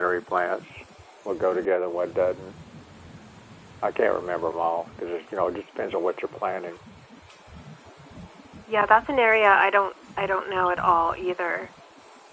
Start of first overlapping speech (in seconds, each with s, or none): none